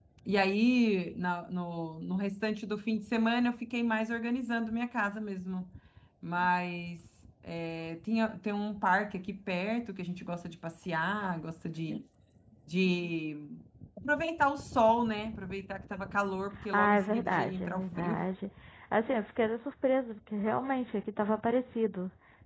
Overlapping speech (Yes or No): Yes